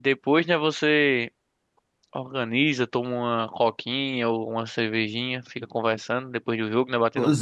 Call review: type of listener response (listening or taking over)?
taking over